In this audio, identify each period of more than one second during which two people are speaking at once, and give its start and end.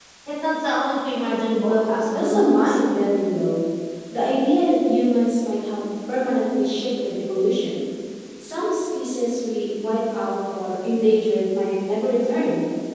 1.6-2.8

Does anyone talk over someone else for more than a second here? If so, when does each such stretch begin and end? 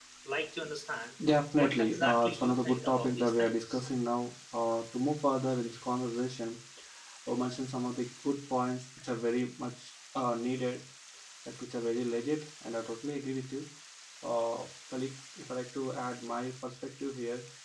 1.6-3.8

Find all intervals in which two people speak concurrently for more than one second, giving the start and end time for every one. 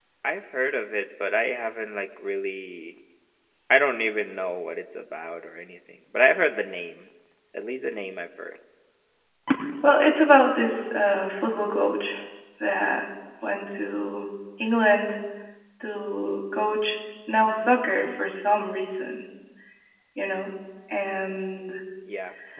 none

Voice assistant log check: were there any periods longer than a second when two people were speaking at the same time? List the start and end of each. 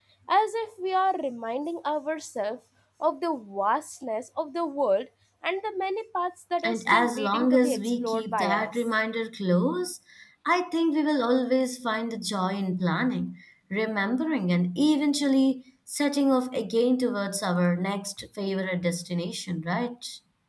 6.6-8.9

